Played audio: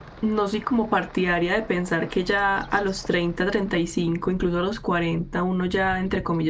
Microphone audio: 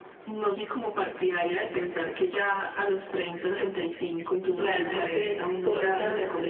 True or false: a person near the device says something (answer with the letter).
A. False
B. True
B